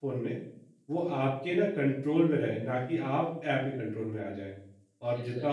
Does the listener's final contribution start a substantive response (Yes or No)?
No